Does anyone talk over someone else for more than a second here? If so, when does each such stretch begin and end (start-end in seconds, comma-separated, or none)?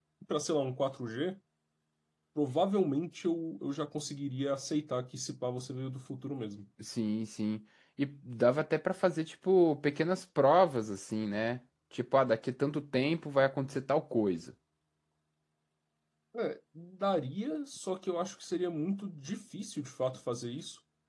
none